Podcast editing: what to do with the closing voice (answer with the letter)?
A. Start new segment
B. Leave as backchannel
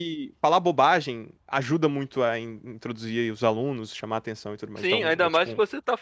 A